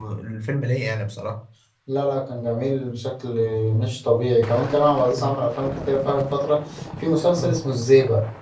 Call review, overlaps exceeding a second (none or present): none